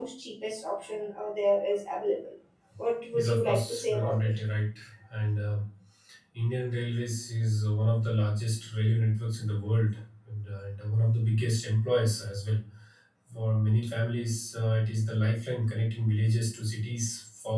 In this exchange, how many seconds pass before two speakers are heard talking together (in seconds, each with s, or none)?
3.1 s